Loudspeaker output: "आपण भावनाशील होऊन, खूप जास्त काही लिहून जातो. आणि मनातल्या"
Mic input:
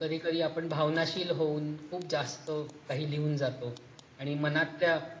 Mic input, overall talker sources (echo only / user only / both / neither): echo only